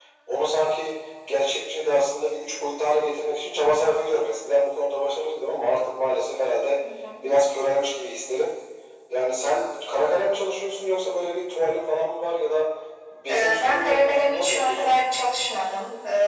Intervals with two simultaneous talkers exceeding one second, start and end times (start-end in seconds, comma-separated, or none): 13.3-14.9